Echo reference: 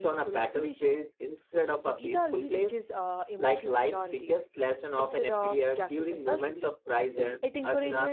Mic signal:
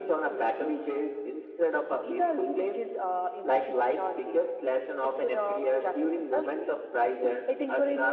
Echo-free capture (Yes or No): No